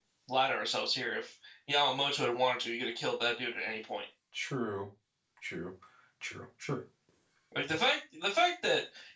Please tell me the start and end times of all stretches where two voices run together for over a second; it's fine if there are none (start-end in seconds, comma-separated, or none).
none